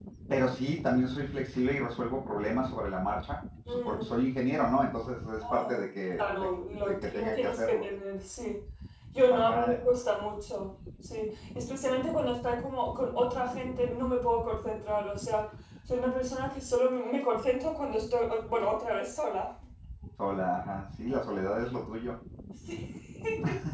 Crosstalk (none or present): present